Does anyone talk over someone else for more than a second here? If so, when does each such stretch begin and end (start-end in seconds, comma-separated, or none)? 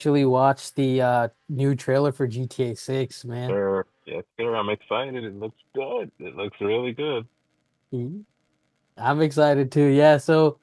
none